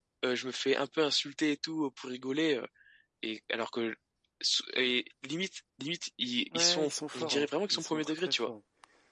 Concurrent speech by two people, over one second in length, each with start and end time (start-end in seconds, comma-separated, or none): 6.5-8.5